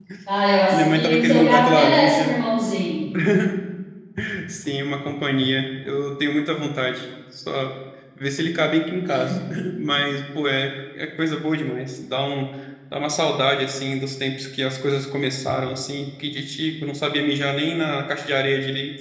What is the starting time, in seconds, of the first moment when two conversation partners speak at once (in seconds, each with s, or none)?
0.7 s